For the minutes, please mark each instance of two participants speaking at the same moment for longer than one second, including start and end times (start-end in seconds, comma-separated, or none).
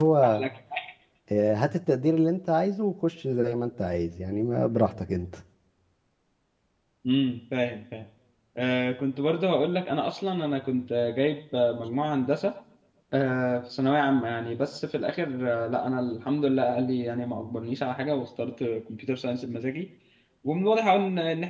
none